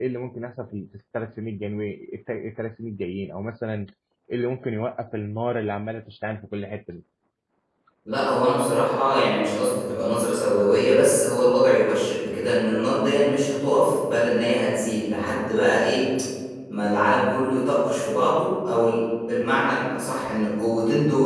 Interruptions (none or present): none